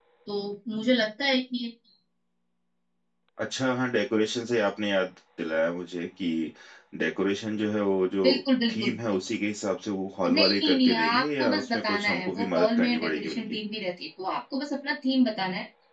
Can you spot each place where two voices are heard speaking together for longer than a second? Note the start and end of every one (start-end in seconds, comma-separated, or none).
10.3-13.6